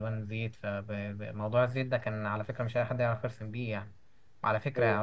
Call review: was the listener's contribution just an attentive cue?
Yes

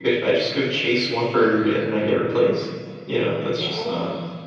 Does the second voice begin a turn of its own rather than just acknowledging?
No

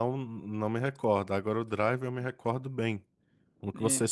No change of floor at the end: Yes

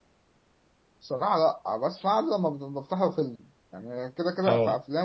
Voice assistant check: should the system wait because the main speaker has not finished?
Yes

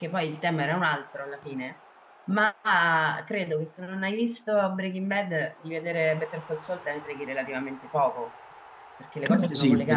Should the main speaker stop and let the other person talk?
Yes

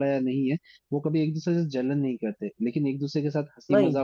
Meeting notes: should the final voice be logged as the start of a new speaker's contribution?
No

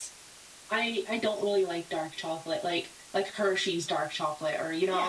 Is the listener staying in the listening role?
No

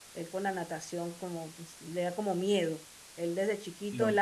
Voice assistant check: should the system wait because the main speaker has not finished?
Yes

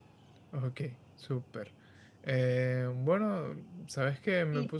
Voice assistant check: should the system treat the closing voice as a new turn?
No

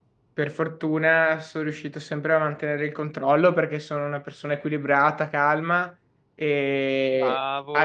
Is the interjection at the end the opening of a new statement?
No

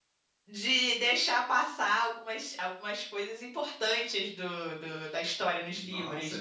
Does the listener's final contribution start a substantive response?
Yes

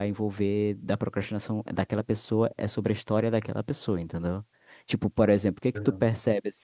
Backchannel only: Yes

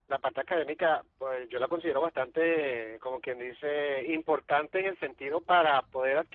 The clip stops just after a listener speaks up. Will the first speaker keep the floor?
Yes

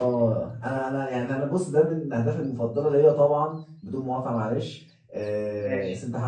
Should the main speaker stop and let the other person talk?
No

